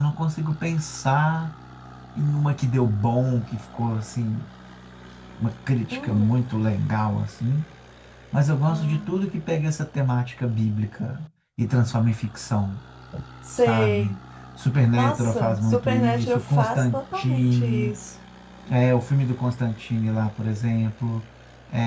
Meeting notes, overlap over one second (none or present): present